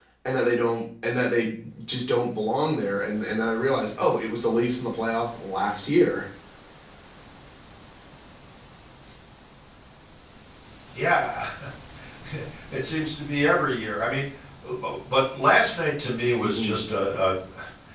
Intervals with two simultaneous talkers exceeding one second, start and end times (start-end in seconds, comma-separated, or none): none